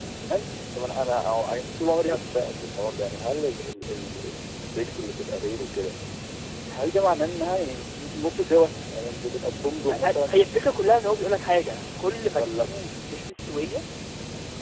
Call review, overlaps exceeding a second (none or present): none